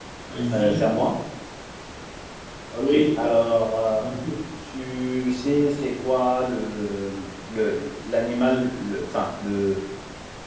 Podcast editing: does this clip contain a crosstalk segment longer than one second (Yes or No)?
No